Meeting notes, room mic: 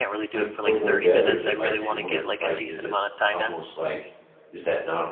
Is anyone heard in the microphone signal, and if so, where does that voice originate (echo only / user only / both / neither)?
both